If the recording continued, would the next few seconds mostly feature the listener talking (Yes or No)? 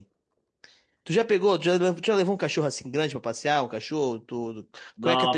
Yes